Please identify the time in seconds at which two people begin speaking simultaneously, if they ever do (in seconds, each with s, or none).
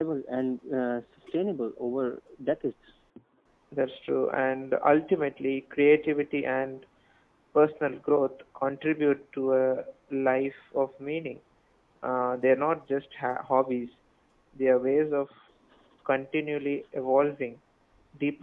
none